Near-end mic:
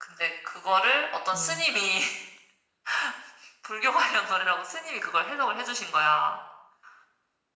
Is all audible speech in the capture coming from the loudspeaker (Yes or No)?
No